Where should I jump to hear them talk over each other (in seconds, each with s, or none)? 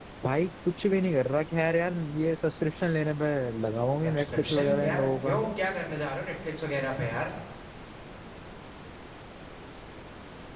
4.0 s